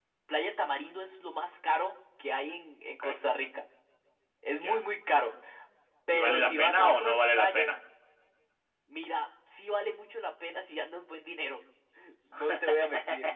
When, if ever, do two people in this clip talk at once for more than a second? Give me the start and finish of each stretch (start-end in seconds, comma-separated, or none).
6.1-7.7